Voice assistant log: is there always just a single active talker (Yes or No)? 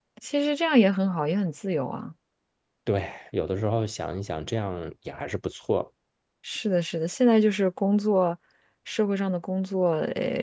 Yes